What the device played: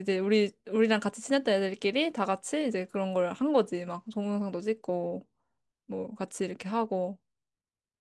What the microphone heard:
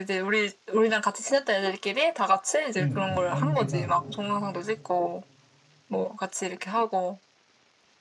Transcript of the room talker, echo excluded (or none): 그러니까 딴지가